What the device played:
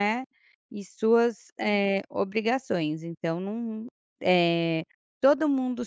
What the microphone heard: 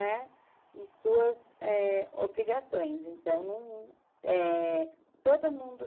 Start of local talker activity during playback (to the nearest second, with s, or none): none